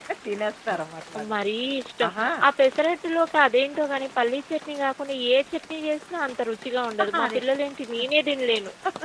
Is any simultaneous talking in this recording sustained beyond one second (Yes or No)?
No